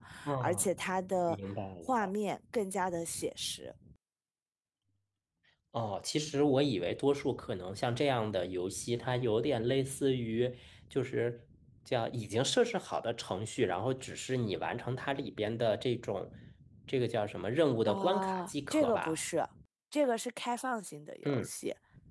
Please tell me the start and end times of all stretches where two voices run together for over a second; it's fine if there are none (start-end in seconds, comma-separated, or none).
17.9-19.2